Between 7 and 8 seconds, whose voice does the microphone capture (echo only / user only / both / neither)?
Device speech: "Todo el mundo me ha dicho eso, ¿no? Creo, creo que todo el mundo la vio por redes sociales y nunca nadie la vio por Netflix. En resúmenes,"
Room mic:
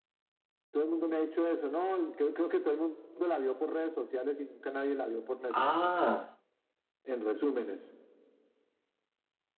echo only